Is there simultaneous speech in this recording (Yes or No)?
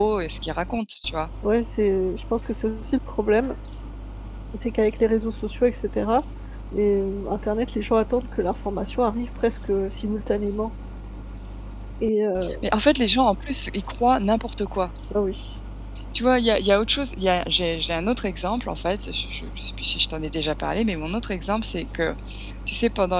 No